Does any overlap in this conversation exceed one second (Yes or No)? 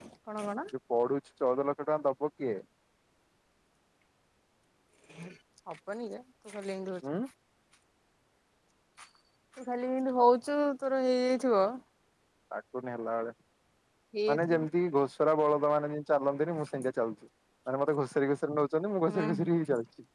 No